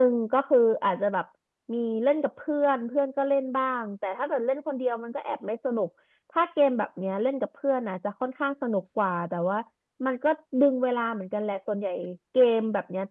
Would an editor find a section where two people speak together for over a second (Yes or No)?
No